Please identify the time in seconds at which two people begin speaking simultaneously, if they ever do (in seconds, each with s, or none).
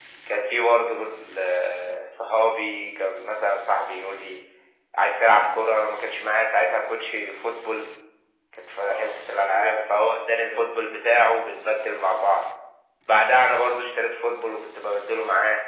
8.8 s